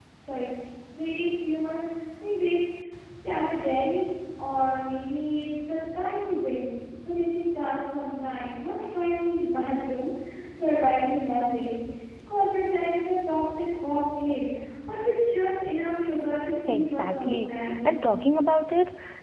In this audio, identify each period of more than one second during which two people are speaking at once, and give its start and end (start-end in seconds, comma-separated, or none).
16.7-18.1